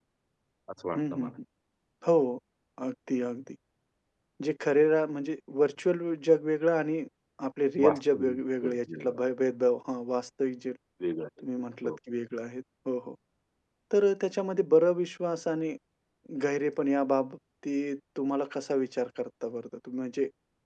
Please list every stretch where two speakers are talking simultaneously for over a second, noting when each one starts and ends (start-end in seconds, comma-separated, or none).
7.8-9.2